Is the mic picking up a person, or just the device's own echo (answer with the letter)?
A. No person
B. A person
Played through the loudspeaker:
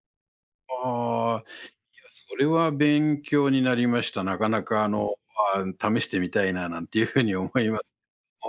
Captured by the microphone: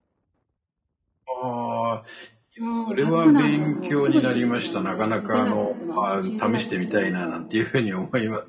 B